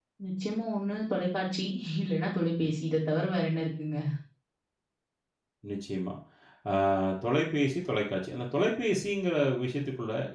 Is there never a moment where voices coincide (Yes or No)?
Yes